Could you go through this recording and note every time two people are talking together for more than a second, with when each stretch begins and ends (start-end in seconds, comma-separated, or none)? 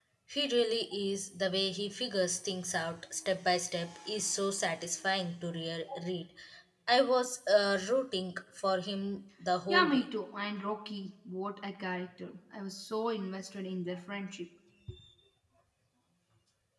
none